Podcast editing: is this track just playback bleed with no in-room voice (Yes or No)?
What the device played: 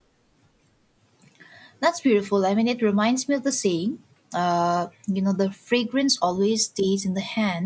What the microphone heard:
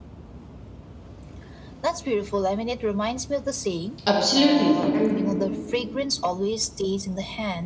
No